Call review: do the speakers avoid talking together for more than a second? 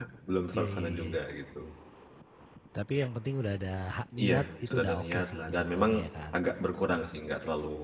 No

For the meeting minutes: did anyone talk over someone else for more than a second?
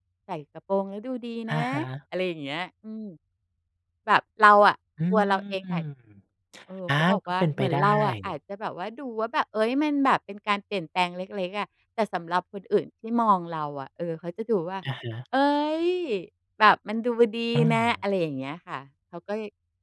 Yes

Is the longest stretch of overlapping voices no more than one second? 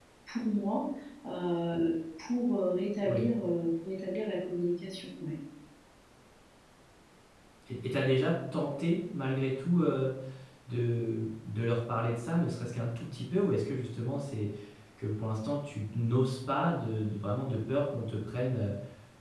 Yes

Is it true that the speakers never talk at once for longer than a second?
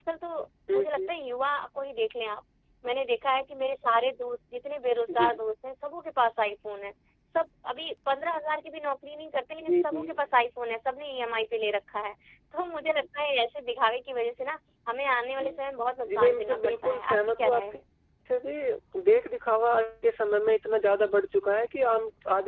No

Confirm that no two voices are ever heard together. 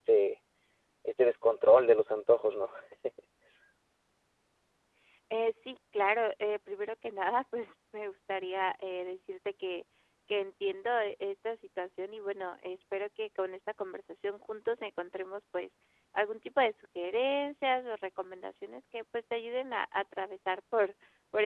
Yes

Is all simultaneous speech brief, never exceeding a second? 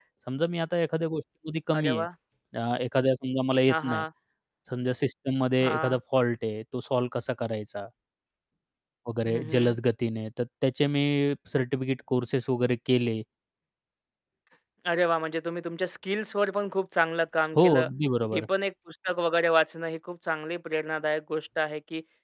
Yes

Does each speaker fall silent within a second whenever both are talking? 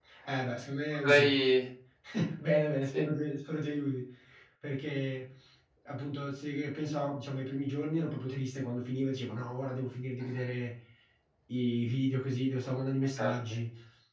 Yes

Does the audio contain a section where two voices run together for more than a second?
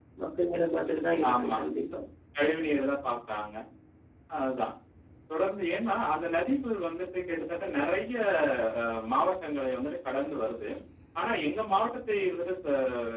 No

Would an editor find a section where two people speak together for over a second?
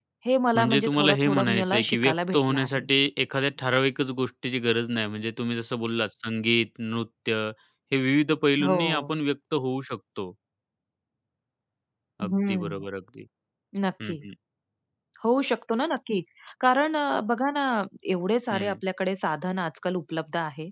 Yes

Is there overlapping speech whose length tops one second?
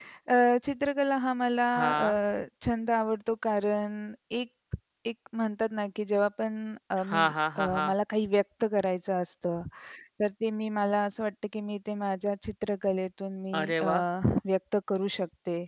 No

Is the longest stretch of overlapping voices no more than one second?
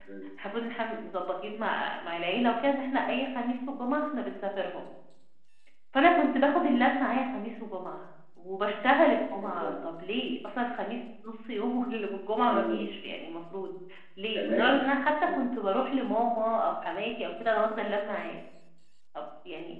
Yes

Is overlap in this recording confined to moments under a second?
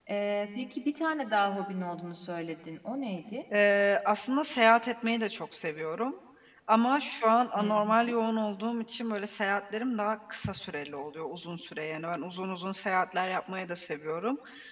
Yes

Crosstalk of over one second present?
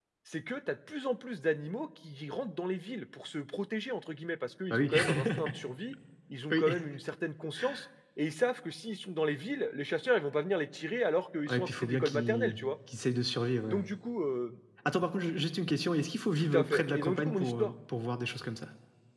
Yes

